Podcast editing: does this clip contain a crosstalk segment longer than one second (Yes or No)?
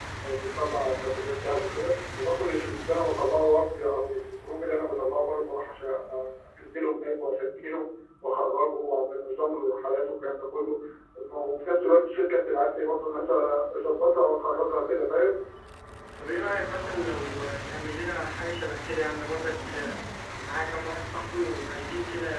No